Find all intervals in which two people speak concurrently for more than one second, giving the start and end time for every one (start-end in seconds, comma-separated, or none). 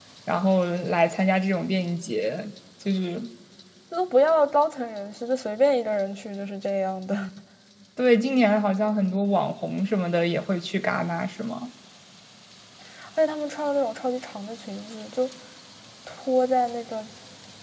none